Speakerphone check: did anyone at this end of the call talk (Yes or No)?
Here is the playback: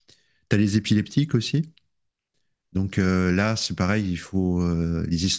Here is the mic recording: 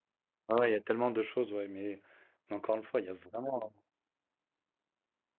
Yes